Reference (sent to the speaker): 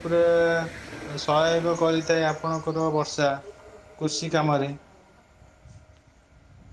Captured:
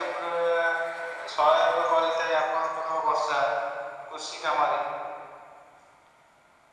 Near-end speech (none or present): none